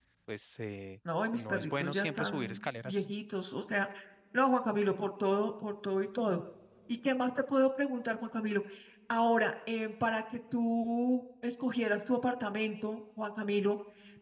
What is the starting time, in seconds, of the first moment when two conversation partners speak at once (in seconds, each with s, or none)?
1.3 s